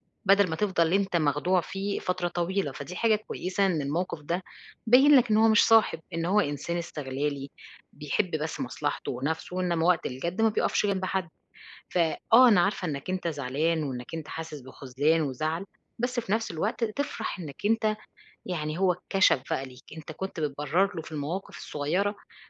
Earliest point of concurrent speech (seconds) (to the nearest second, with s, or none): none